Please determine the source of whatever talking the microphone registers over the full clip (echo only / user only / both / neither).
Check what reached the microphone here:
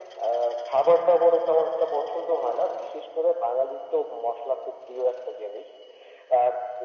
echo only